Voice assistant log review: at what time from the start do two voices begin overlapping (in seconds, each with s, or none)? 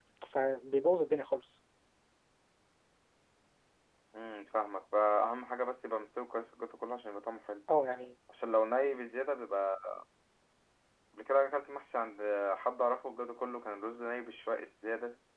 none